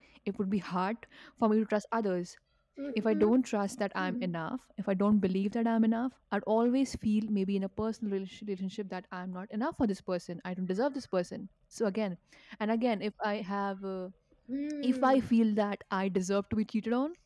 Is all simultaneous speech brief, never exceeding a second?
Yes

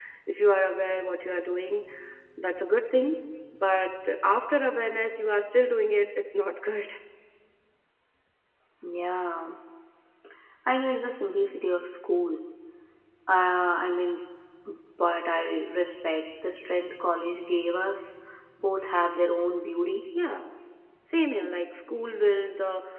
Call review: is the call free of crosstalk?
Yes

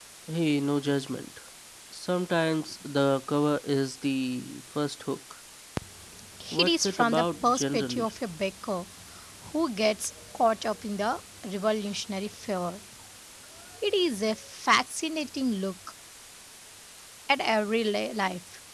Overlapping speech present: Yes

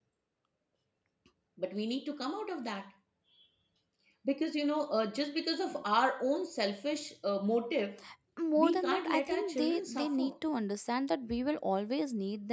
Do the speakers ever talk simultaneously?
Yes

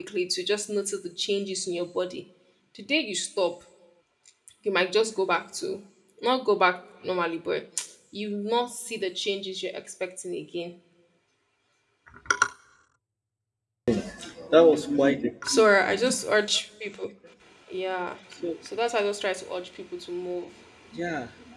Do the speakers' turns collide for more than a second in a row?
No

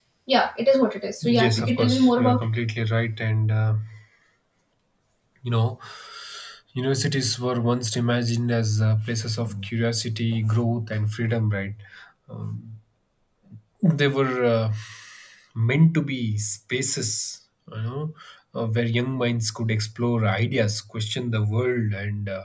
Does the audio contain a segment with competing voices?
Yes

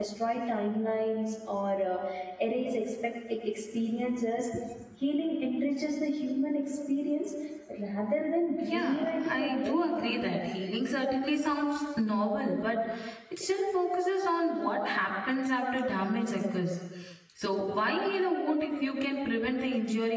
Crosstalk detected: Yes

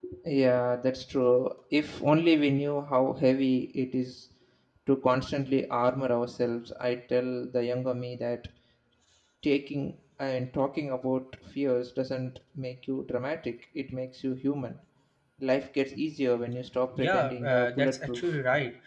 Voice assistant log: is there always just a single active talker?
No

